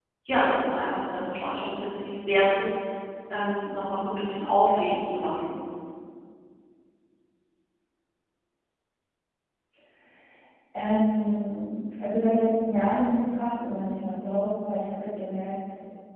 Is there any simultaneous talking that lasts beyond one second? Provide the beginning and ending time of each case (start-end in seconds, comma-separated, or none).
none